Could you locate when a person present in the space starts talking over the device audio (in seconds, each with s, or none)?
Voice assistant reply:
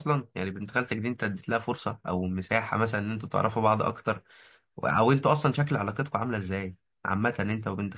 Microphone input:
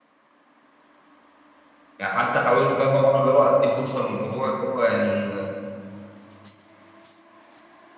2.0 s